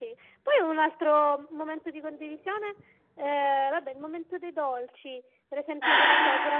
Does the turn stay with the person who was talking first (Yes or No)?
Yes